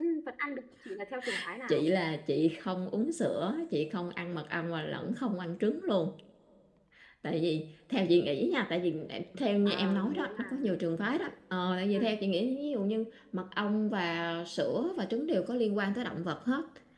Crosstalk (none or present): present